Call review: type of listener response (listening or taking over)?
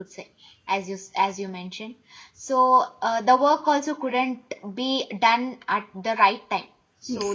listening